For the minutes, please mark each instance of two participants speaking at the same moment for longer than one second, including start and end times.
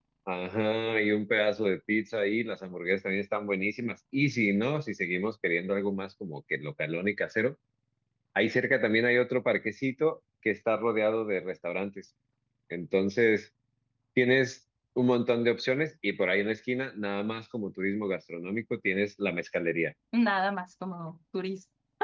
none

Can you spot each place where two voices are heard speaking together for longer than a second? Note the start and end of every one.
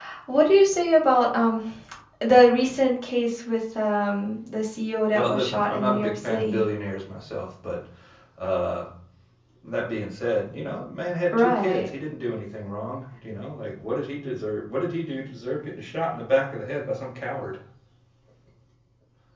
5.1-6.6

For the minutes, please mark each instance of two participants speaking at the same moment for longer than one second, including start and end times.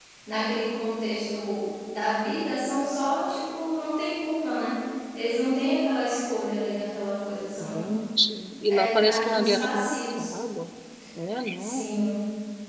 8.7-10.2

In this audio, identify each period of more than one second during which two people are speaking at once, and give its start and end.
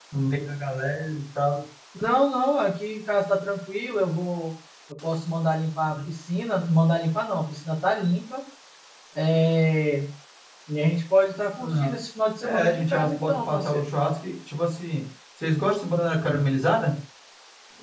12.4-13.9

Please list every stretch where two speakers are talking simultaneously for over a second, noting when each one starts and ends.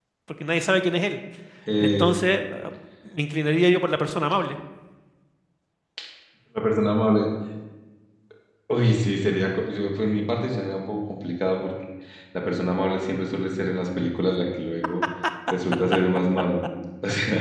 none

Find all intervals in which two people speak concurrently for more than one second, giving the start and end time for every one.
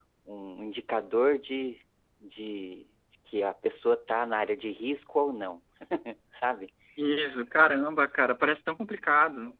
none

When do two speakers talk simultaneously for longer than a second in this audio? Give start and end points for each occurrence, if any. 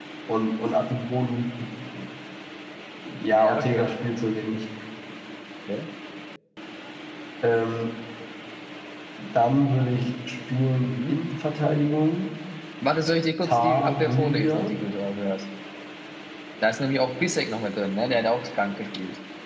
13.4-14.8

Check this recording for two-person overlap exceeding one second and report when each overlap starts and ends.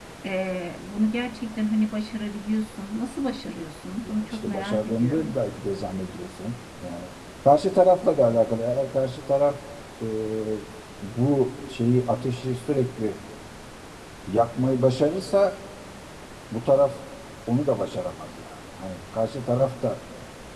4.0-5.3

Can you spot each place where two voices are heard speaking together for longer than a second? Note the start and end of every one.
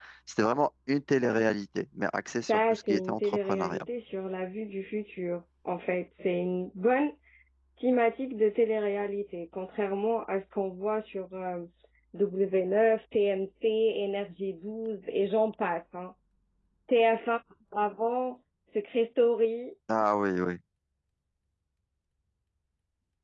2.5-3.8

